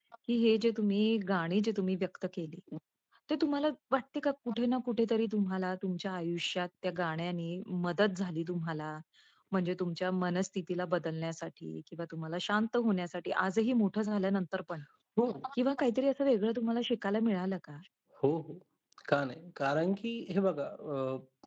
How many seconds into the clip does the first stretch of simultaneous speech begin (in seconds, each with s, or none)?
none